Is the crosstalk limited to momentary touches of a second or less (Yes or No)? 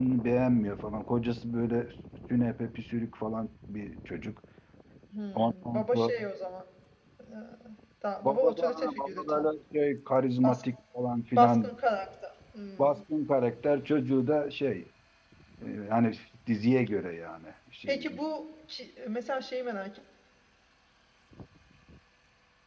No